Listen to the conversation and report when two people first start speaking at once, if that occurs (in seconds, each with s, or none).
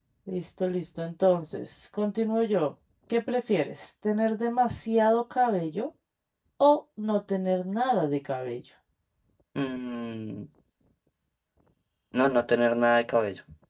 none